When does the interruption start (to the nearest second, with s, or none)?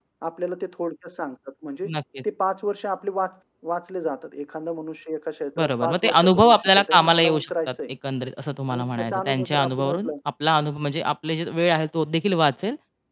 6 s